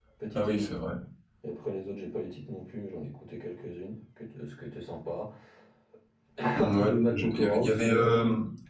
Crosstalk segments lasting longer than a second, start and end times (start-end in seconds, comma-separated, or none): 6.5-8.0